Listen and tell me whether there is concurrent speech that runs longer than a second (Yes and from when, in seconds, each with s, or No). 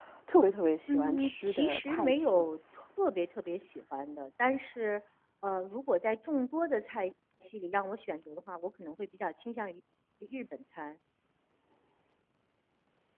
Yes, from 0.9 s